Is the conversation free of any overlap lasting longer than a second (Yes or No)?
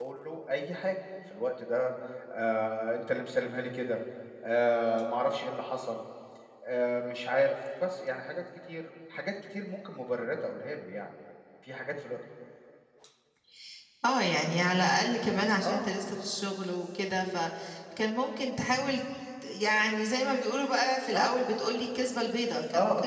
Yes